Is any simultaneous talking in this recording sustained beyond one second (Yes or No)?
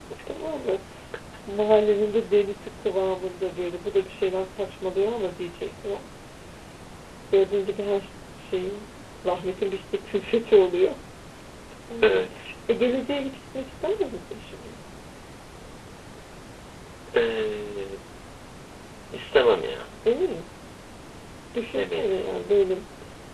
No